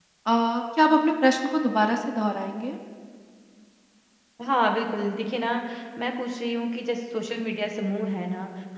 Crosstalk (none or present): none